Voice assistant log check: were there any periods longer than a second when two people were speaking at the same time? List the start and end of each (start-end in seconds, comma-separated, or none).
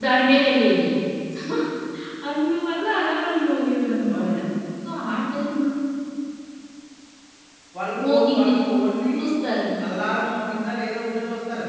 none